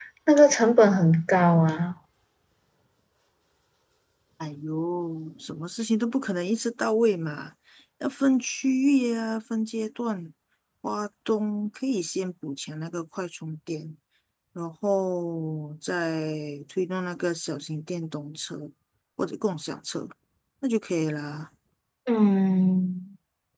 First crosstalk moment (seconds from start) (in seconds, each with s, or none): none